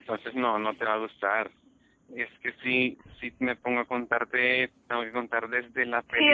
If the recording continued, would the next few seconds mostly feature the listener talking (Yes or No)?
Yes